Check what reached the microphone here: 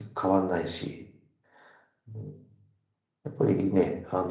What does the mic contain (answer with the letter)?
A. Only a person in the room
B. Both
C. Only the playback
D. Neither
A